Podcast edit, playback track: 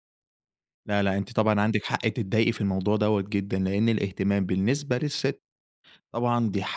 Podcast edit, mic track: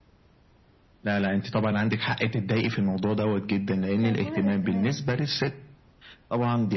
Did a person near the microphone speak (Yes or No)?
Yes